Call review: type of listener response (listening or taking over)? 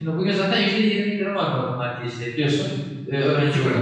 taking over